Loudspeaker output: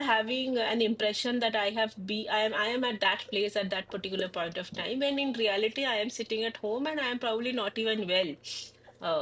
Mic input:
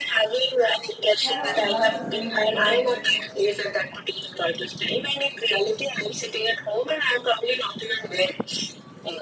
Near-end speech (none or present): present